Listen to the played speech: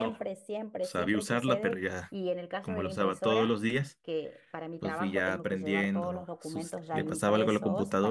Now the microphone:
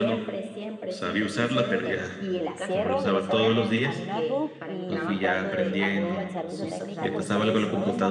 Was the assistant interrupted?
Yes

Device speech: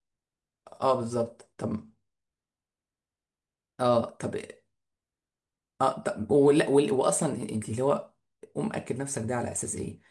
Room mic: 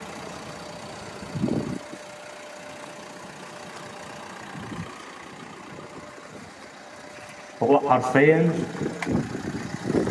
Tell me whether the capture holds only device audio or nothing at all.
No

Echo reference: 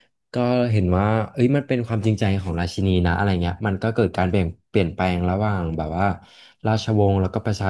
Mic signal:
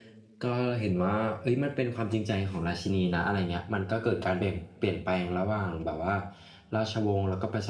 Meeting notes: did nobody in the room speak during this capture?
Yes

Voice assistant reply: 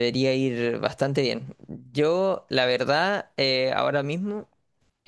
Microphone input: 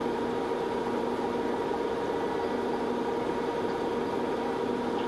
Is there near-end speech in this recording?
No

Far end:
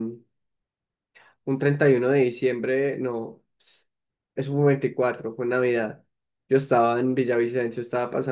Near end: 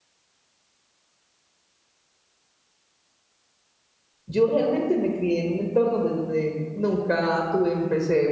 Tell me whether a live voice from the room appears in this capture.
Yes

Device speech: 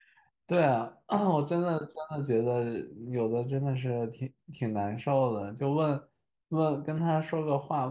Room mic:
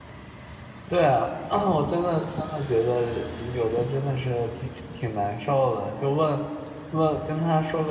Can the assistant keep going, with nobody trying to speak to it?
Yes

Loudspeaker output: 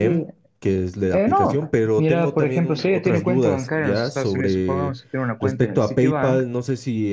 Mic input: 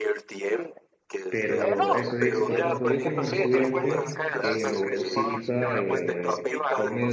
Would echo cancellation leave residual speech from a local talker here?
Yes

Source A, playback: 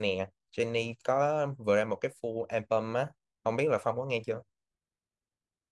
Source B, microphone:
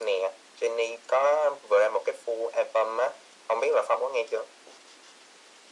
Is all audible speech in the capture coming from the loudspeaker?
Yes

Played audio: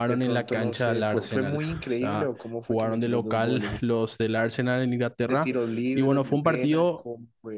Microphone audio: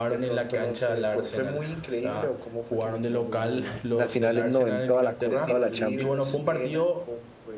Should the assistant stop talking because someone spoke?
Yes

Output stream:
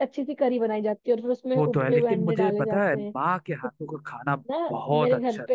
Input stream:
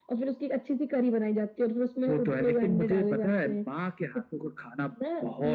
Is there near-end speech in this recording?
No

